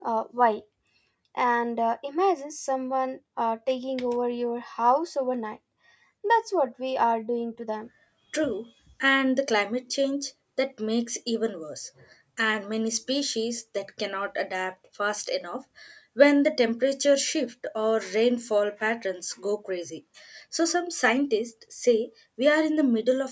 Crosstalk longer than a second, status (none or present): none